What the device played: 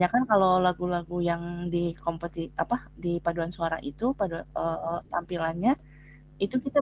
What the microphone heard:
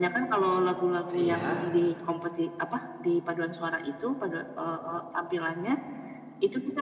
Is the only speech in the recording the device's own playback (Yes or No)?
No